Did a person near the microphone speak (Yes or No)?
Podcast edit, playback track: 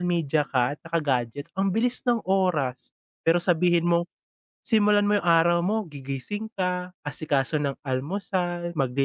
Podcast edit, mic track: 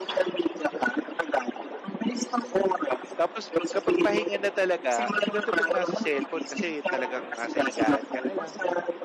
Yes